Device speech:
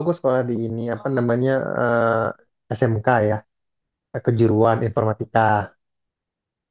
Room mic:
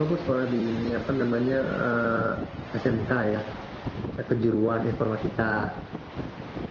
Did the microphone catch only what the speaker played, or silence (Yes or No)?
Yes